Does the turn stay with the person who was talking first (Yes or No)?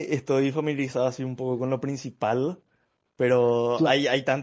Yes